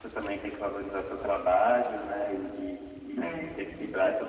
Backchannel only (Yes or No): Yes